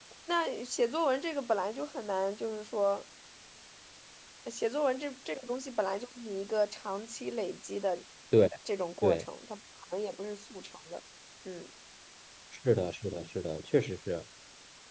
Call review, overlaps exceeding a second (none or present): none